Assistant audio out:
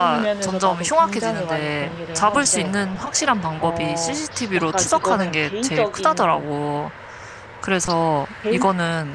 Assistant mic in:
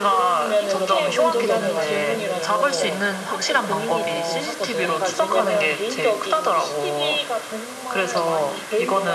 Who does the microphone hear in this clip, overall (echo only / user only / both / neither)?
both